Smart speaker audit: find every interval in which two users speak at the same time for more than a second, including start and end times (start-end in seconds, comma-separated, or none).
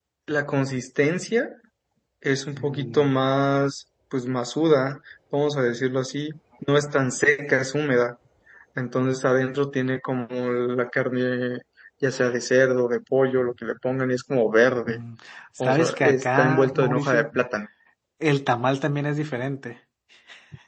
15.6-17.3